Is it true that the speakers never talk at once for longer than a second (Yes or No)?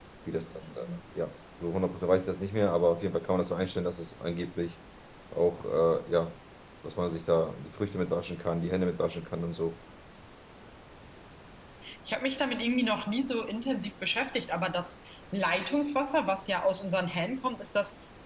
Yes